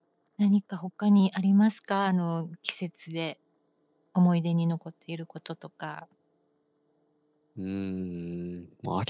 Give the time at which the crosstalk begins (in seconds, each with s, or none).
none